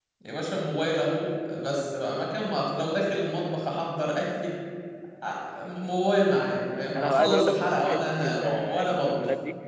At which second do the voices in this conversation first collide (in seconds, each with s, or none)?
7.0 s